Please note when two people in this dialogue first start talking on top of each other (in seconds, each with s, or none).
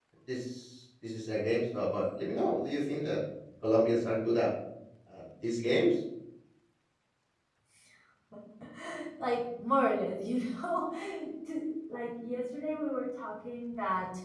none